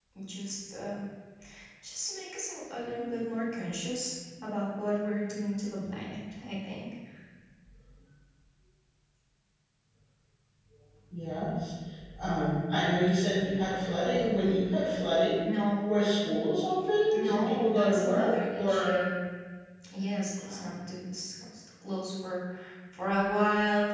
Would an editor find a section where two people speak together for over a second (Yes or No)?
Yes